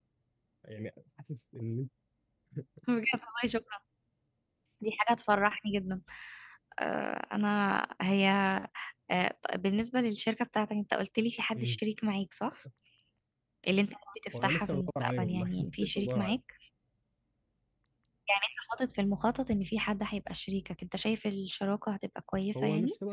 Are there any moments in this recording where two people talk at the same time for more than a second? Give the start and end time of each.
14.3-16.4

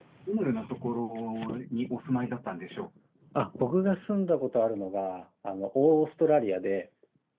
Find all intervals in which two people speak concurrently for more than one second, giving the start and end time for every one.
none

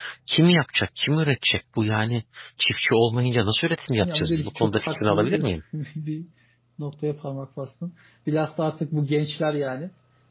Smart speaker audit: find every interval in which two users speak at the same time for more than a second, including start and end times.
4.0-5.4

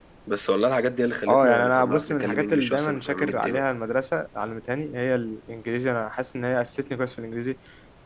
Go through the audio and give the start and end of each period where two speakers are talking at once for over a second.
1.3-3.6

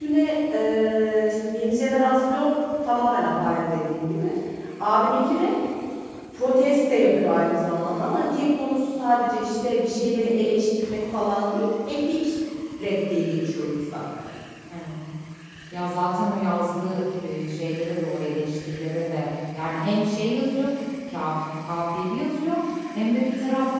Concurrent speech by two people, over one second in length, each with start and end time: none

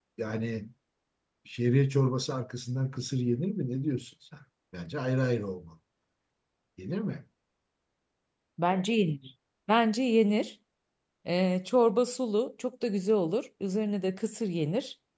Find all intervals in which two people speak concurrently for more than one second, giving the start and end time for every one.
none

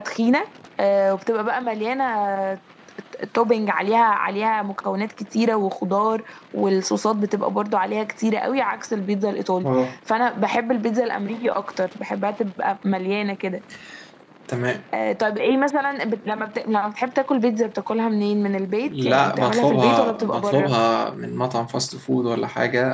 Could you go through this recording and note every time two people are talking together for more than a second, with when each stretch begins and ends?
18.9-20.8

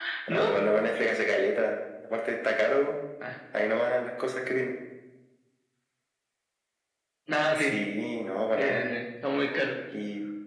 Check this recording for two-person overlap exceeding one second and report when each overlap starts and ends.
none

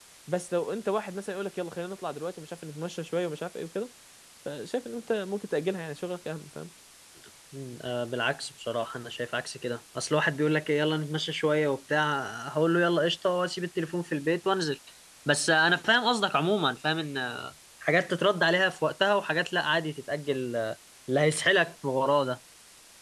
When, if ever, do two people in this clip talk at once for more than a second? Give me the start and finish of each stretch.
none

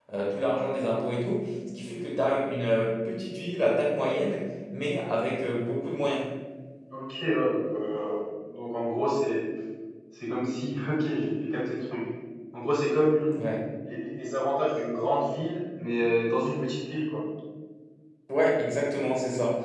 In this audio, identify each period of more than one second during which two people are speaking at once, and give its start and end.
none

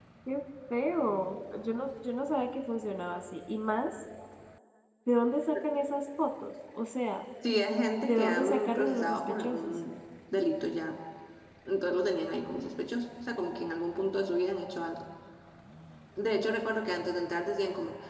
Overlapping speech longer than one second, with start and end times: 8.0-9.7

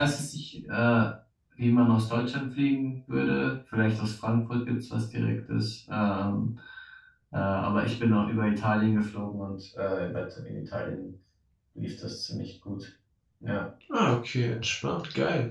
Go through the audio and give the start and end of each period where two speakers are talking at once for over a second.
none

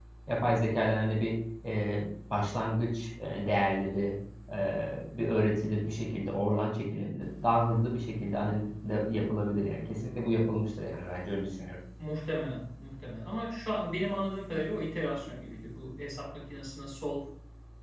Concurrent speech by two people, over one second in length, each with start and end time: none

